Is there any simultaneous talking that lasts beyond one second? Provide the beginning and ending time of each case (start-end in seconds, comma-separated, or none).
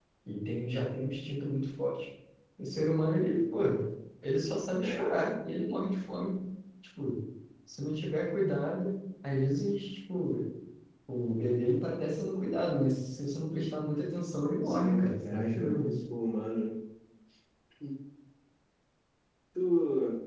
14.6-15.9